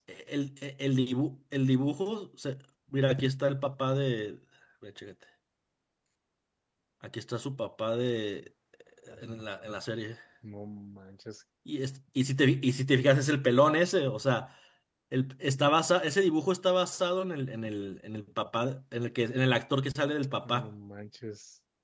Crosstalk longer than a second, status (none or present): none